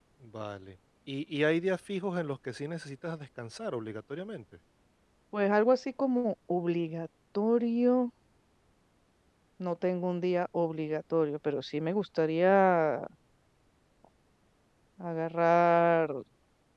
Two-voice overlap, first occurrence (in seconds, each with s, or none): none